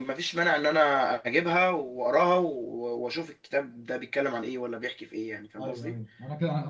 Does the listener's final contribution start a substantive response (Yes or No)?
Yes